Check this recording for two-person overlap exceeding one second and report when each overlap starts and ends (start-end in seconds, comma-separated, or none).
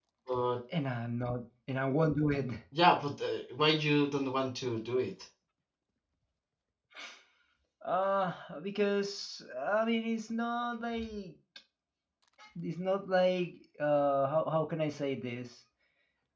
none